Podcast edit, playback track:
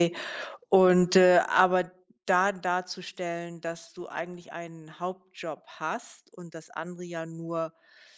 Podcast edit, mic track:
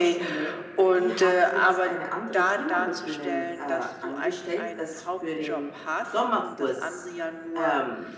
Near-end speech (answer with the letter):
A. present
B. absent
A